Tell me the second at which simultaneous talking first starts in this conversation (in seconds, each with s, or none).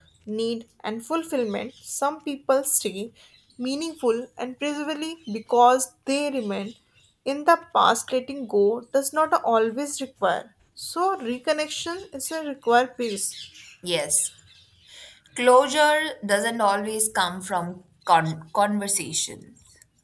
none